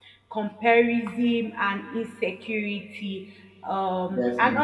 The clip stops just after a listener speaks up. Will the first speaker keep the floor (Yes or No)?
Yes